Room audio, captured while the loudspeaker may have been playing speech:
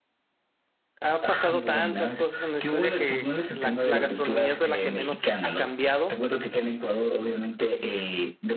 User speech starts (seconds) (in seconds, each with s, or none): 1.0 s